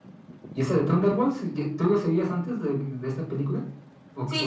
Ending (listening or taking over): taking over